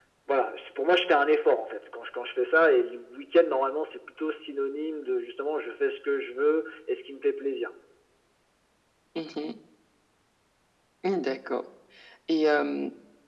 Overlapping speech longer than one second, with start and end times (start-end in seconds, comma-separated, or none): none